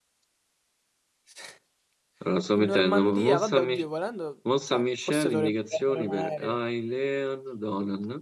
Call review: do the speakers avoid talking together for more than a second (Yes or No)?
No